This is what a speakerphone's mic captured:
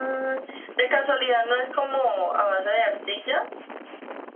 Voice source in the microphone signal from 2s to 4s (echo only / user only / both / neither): echo only